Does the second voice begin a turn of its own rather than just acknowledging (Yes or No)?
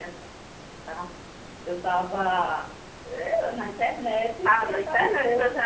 Yes